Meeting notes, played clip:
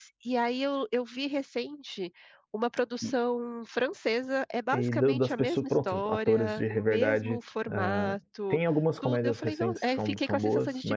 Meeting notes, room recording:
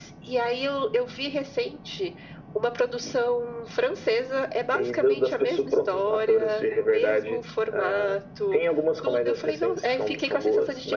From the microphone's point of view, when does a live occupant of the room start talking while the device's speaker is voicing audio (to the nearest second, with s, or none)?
none